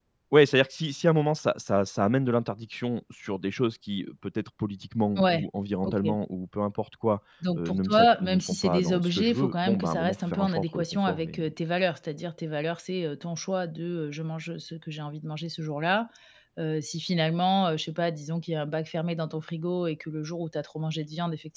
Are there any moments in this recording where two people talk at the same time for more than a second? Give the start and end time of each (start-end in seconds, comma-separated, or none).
7.6-11.4